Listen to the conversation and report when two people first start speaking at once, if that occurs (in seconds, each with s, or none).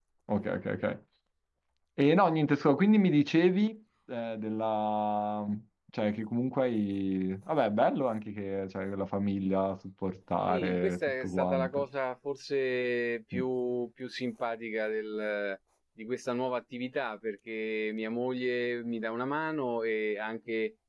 10.5 s